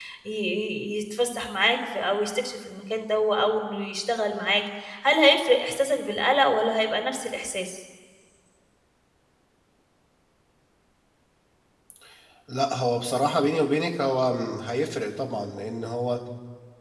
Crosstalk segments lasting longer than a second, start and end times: none

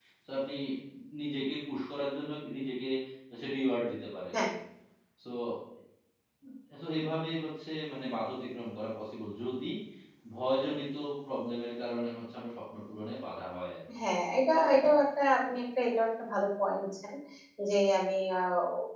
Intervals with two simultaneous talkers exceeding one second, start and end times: none

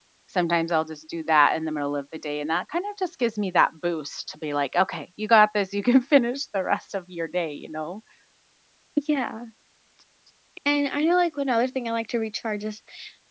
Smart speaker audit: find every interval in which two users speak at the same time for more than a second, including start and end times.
none

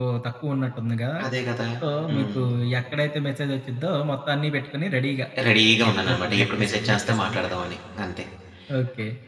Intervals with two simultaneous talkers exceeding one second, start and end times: 5.9-7.4

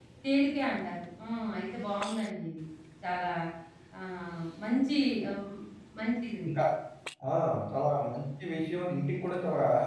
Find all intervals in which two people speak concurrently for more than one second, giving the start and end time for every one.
none

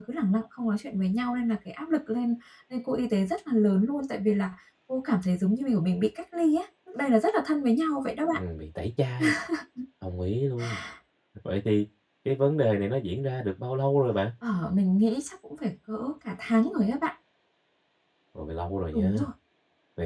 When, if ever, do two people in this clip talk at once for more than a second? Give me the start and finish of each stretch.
none

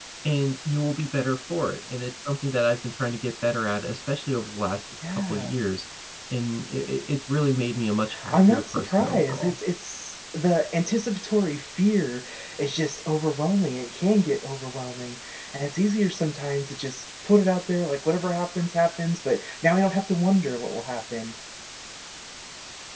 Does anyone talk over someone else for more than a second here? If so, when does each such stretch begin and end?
8.3-9.6

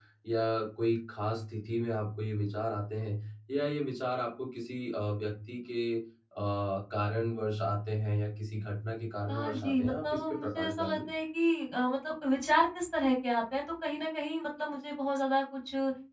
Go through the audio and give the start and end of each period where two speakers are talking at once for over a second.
9.3-11.0

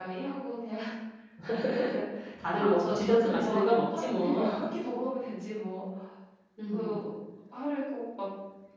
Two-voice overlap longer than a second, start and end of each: 2.5-4.4

